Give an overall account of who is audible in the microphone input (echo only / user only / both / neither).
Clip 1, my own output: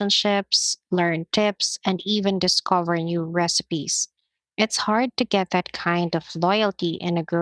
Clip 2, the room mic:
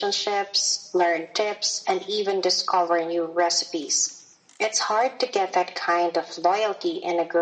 echo only